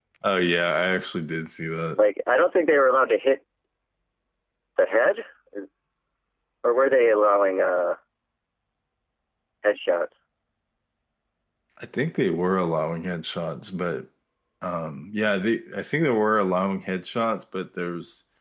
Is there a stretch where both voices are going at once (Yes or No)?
No